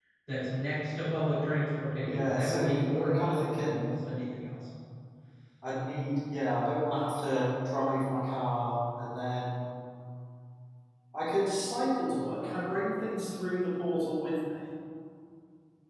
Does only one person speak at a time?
No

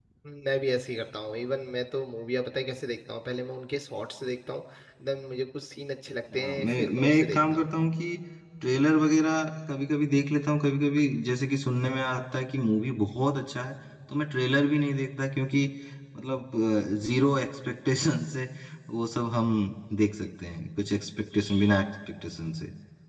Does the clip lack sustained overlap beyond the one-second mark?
No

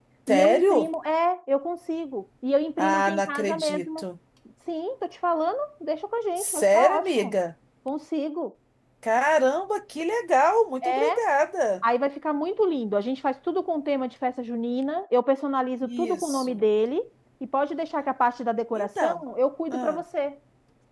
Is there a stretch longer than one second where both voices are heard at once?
Yes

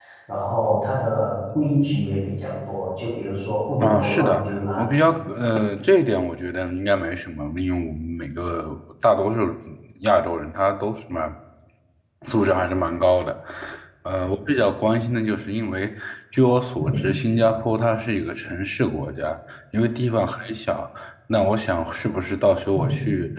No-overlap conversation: No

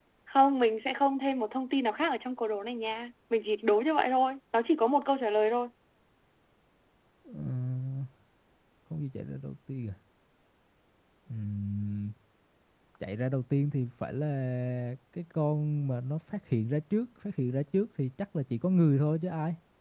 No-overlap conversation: Yes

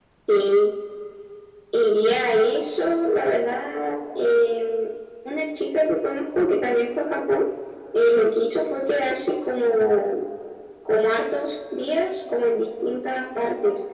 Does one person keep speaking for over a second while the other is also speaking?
No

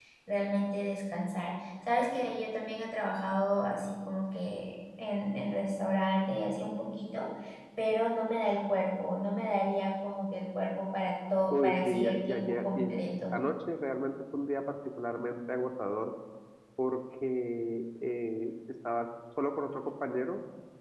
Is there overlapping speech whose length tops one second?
Yes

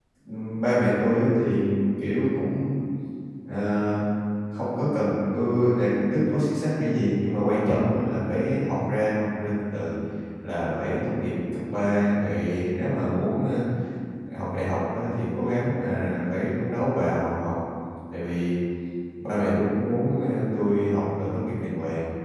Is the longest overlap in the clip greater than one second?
No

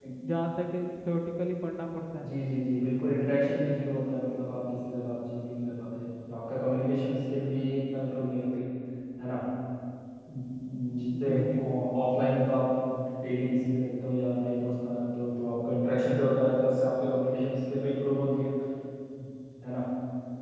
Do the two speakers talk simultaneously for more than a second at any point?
No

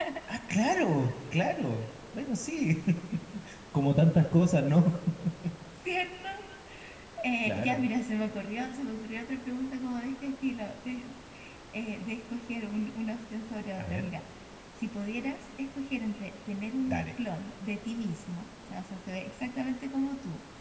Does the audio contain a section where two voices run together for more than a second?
No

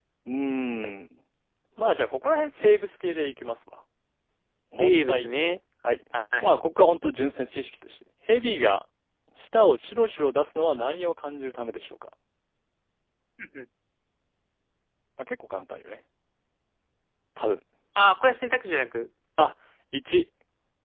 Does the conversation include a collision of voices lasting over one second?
No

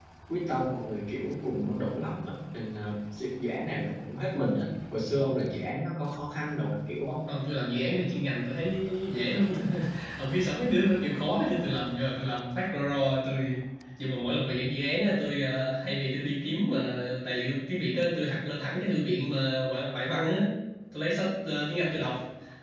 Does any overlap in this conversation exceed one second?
No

